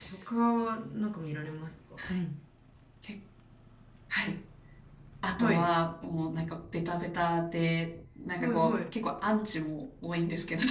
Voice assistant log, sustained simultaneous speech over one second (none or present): none